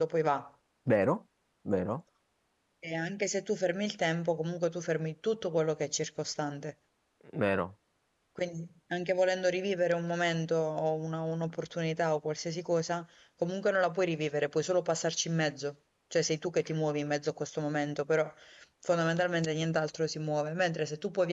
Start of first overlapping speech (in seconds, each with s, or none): none